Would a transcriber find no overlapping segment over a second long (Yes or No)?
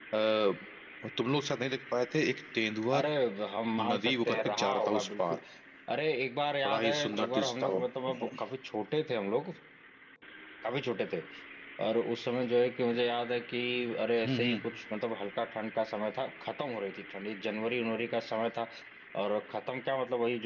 No